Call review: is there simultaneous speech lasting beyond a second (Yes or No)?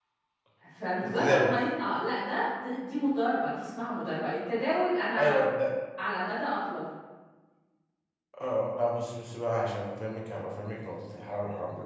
No